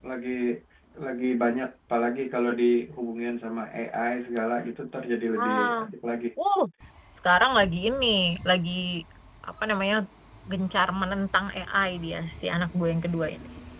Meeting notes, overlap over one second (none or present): none